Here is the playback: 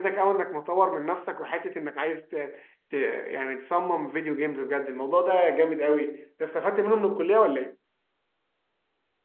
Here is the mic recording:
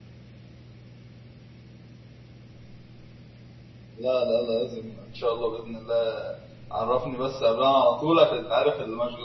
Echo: none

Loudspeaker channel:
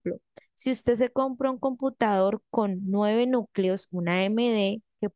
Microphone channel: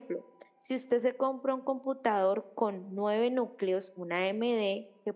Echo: present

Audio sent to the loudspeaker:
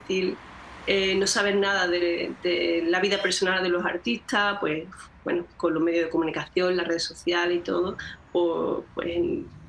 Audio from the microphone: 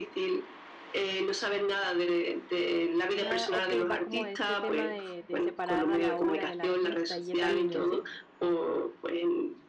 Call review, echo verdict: present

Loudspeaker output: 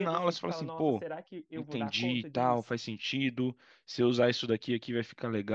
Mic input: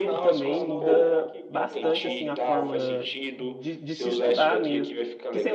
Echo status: present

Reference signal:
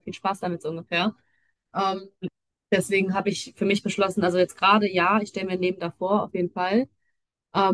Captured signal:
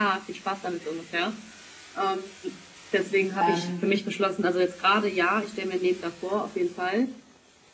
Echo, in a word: present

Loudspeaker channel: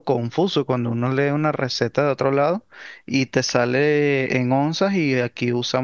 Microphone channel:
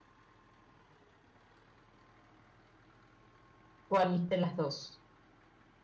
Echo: none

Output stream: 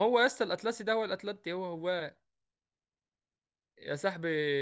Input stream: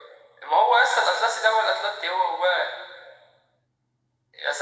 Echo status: present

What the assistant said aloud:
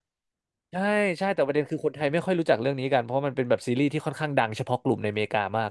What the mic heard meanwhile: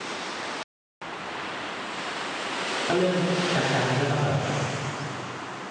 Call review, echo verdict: none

